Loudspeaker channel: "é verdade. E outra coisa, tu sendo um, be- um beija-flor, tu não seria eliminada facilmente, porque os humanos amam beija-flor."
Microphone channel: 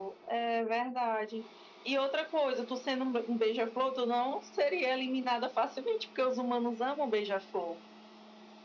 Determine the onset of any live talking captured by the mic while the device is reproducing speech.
none

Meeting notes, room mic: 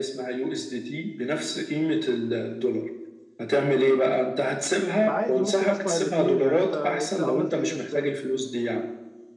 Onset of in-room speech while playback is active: 5 s

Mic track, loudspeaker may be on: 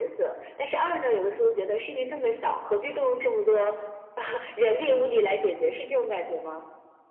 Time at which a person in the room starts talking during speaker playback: none

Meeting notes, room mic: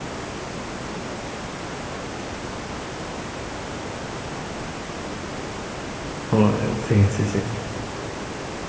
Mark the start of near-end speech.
6 s

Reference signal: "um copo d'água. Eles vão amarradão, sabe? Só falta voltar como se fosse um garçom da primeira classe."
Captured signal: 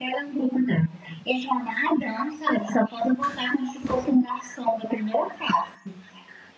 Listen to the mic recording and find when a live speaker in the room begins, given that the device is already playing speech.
none

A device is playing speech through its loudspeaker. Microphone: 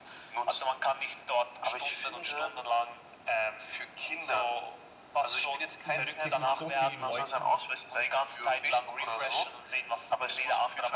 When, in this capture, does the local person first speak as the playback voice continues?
6 s

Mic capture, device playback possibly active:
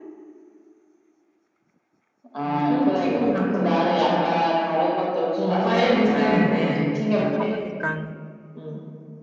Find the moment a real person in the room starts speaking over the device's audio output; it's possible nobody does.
6 s

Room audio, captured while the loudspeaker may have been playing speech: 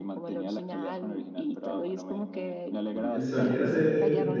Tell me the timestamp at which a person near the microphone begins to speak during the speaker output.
3 s

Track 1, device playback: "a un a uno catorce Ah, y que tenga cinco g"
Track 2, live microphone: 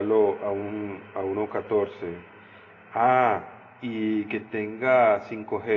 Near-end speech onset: none

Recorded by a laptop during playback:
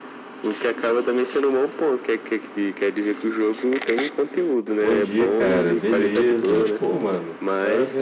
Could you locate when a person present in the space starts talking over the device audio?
5 s

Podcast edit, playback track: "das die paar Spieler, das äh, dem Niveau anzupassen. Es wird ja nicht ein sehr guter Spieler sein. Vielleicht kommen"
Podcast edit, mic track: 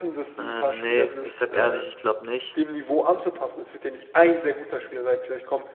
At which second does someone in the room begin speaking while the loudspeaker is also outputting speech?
0 s

